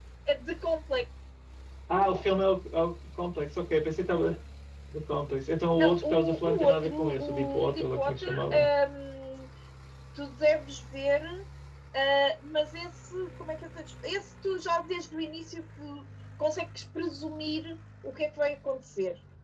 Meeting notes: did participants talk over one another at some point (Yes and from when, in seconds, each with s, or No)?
Yes, from 5.8 s